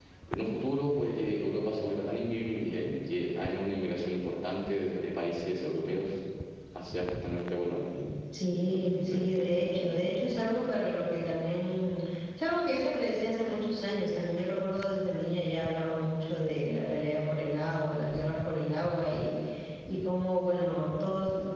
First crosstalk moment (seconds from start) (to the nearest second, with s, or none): 9 s